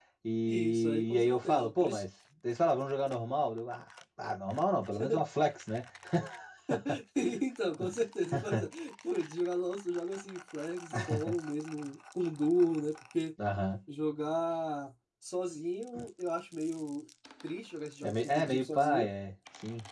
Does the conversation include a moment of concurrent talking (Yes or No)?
Yes